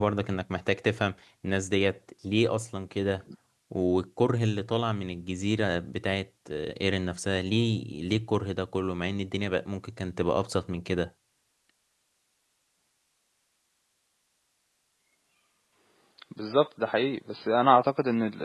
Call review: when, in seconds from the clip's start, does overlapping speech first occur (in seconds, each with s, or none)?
none